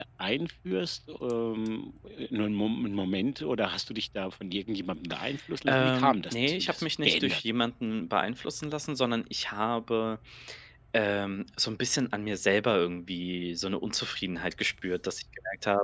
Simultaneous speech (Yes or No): Yes